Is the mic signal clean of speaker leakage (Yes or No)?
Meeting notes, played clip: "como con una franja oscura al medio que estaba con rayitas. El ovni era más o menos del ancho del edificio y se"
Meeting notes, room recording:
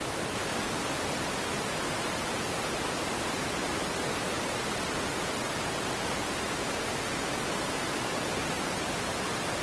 Yes